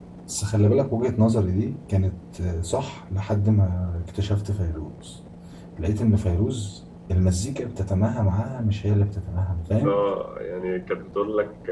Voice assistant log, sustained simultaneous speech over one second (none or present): none